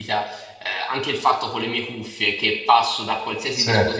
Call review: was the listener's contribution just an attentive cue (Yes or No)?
Yes